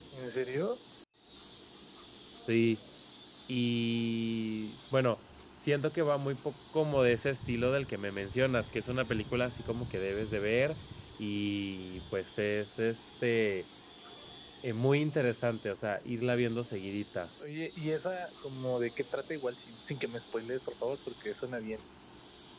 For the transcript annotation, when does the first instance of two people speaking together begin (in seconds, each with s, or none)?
none